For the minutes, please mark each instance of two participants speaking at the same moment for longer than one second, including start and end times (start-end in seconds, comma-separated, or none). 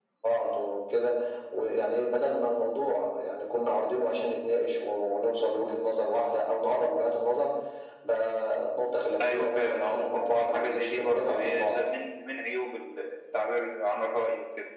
9.2-11.8